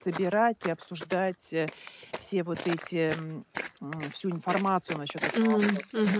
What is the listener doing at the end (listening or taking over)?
taking over